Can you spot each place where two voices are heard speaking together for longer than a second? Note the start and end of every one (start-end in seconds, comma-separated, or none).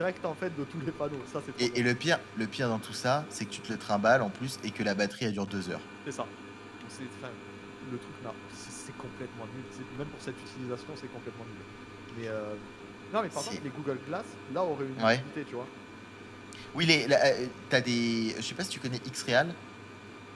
none